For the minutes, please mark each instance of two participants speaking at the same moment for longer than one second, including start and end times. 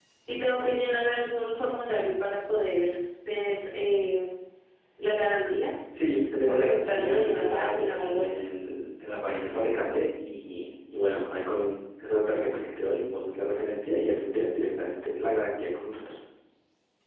6.5-8.4

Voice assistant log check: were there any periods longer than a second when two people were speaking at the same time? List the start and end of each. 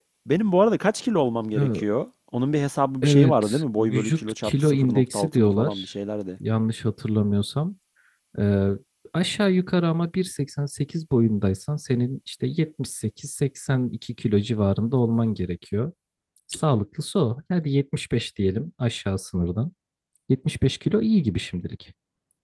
3.0-5.9

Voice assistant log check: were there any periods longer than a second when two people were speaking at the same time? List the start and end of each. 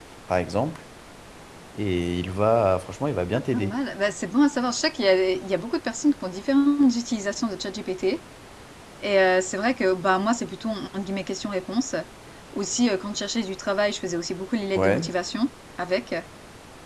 none

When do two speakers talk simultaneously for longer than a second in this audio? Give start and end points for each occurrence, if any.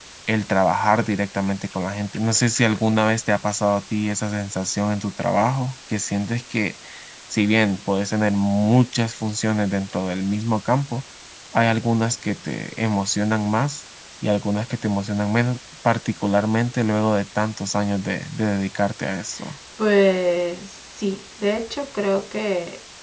none

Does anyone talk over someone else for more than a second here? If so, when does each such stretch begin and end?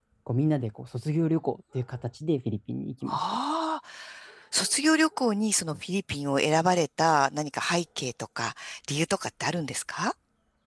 none

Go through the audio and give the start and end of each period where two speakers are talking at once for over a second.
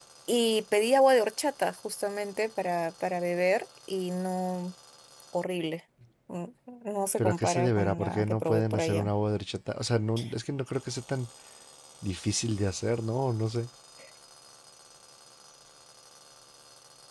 7.2-9.1

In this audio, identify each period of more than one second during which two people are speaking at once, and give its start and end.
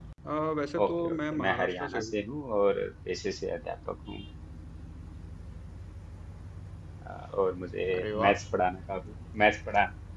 0.8-2.1

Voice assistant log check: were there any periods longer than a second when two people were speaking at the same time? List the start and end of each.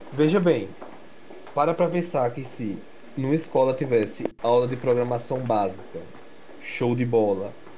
none

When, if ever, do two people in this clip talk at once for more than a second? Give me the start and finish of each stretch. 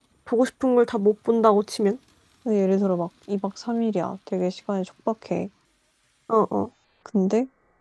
none

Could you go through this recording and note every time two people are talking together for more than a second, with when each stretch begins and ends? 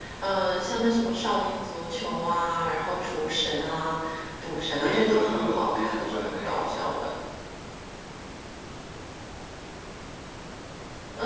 4.6-6.8

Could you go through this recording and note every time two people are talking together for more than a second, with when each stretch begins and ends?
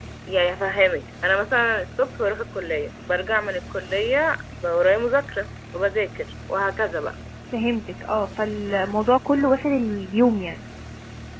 none

